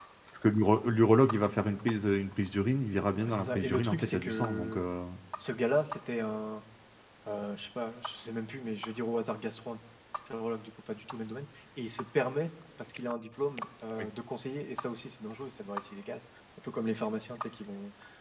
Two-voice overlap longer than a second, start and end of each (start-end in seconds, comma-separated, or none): 3.3-4.8